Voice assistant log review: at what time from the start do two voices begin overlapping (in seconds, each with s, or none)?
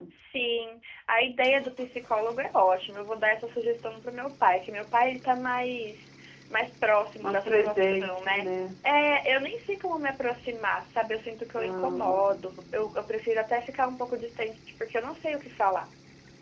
7.2 s